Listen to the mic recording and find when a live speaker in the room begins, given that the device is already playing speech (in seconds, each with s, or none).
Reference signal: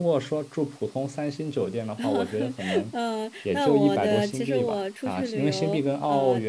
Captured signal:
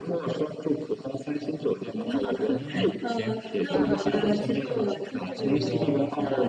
2.5 s